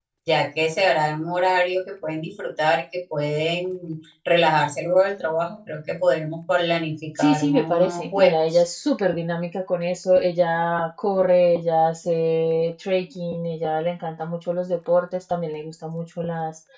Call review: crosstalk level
present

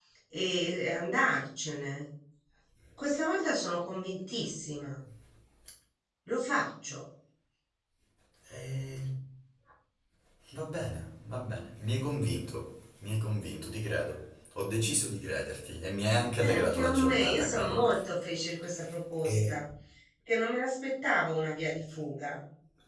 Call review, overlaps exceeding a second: present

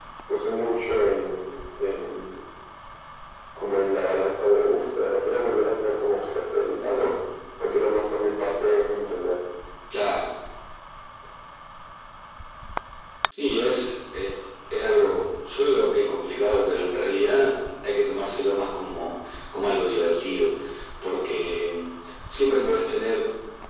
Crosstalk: none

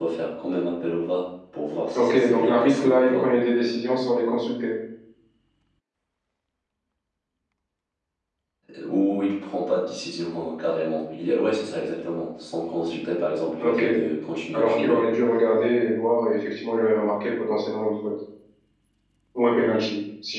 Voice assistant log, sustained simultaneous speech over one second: present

